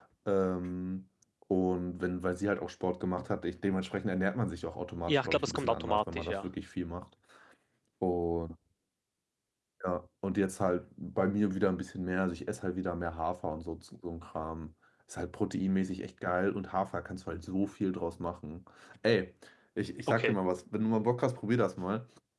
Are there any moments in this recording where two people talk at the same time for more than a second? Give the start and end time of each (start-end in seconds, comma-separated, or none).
5.1-6.4